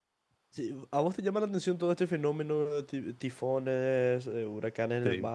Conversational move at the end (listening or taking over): listening